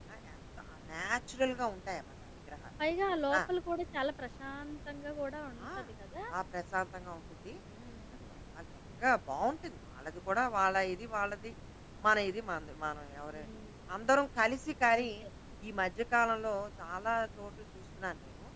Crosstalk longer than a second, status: none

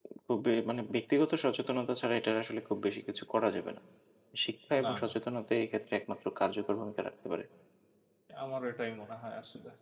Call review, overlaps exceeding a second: none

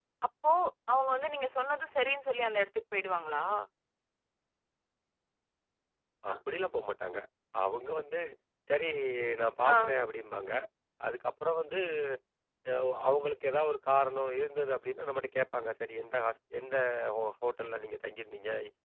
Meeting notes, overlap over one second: none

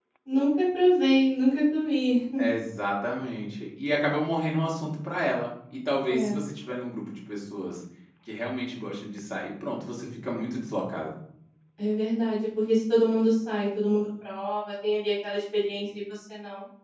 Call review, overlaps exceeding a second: none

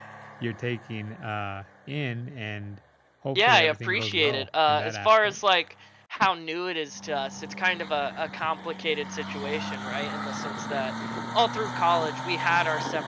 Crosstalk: present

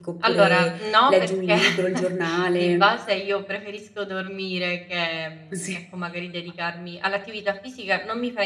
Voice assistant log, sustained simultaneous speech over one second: present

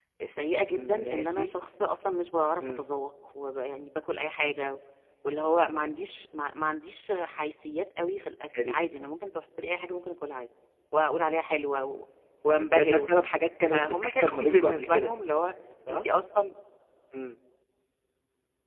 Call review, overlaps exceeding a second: present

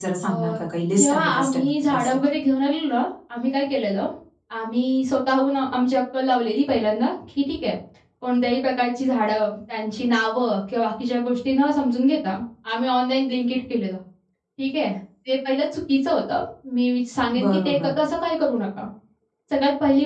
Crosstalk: present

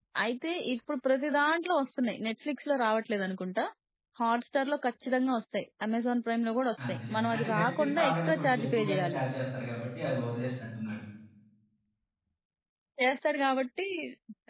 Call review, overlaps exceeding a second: present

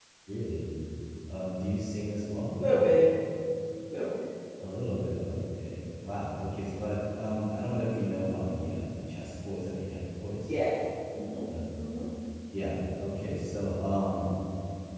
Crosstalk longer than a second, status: none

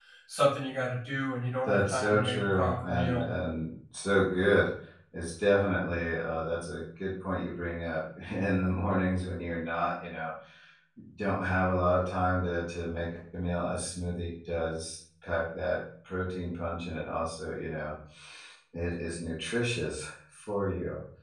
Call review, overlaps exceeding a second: present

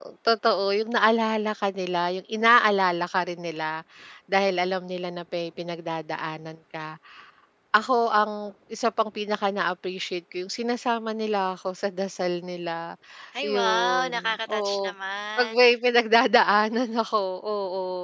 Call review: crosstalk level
present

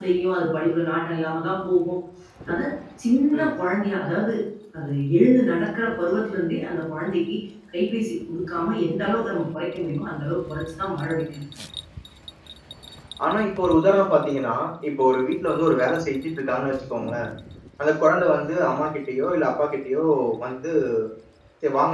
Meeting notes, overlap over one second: none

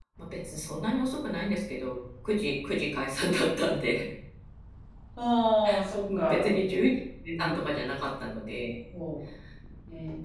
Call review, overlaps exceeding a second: none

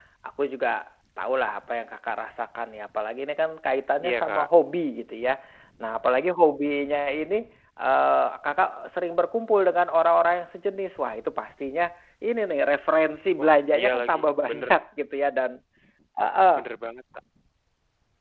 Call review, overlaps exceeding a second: present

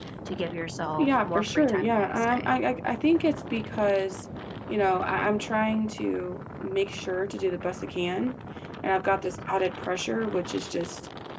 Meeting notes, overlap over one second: present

